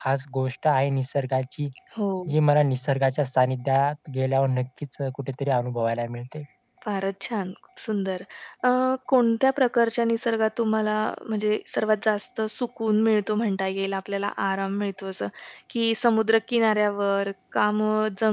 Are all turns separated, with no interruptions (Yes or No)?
Yes